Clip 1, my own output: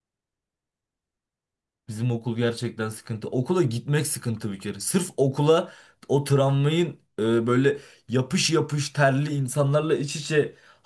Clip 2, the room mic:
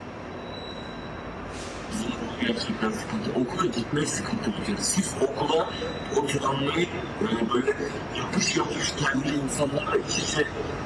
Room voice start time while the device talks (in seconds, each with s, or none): none